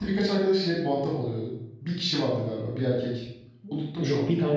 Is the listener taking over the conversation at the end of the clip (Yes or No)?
Yes